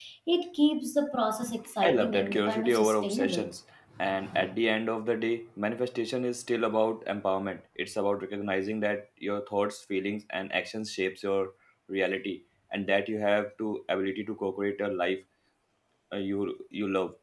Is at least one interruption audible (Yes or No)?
Yes